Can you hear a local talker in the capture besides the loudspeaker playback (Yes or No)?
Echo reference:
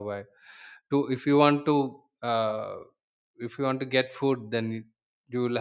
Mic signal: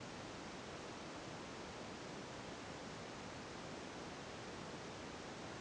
No